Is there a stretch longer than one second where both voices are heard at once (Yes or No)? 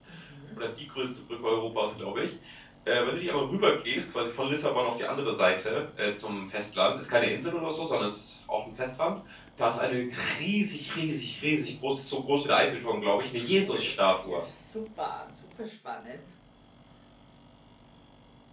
Yes